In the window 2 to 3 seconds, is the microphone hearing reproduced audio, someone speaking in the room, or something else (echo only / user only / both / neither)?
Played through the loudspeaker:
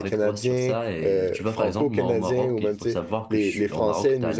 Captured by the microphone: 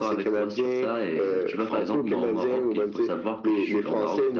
echo only